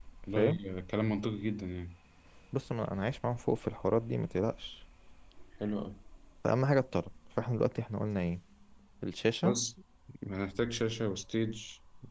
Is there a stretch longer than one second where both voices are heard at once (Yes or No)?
No